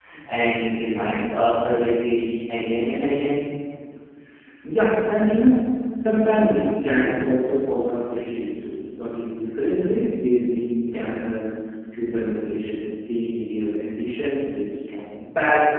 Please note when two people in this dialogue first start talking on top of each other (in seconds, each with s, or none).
none